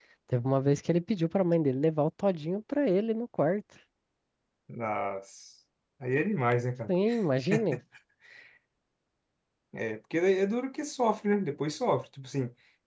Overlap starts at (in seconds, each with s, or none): none